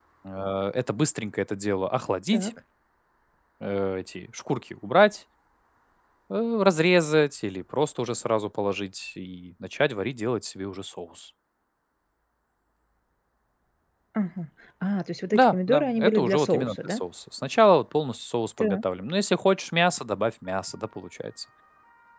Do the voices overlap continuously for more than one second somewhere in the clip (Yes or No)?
Yes